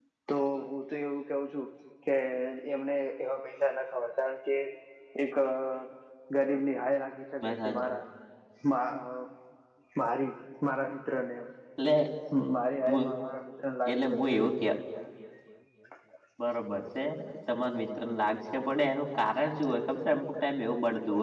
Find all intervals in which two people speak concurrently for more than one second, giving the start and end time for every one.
none

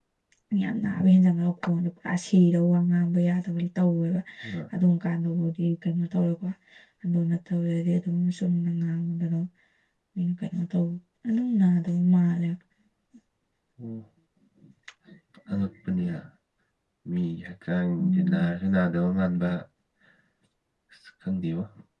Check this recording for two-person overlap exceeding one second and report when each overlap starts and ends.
none

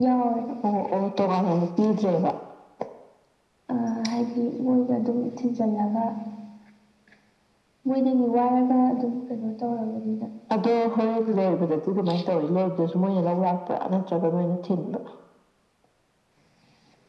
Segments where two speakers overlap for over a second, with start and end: none

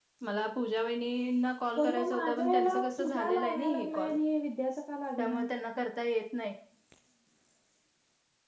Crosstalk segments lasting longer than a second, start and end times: 1.8-4.2

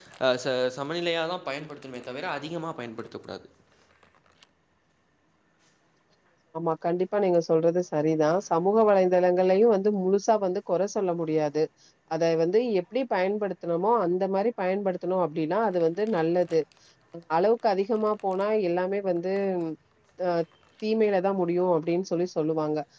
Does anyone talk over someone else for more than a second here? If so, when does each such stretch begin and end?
none

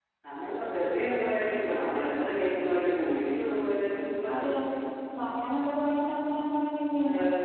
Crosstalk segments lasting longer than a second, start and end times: none

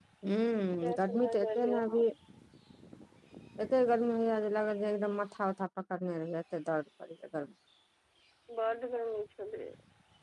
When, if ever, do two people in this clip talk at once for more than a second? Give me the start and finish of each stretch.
0.8-2.0

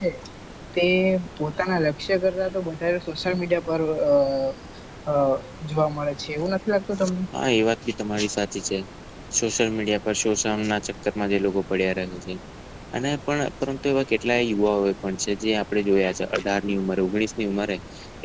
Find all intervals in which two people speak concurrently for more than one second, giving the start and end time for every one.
none

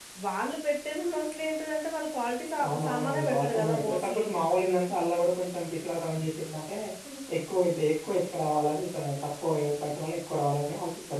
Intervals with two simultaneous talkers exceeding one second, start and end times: 2.6-4.2

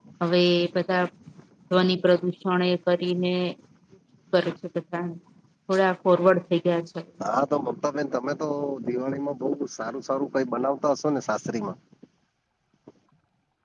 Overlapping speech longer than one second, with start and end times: none

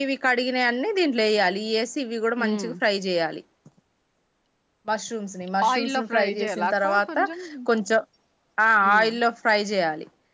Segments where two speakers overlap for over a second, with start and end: 5.7-7.3

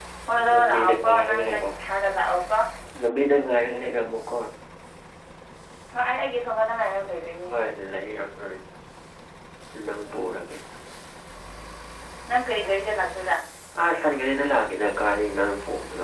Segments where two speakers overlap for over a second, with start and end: 0.5-1.9

